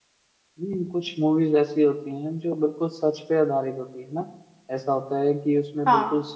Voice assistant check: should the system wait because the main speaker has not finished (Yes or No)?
Yes